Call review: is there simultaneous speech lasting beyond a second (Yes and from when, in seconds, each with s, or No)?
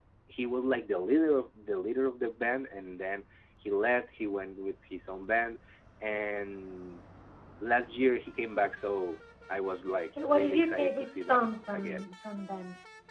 Yes, from 10.2 s